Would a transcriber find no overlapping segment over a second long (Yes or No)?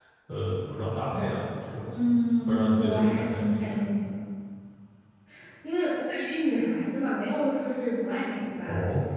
No